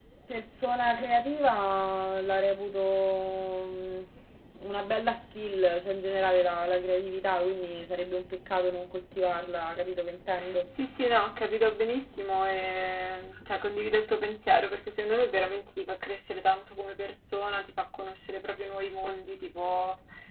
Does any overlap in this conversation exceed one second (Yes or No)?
No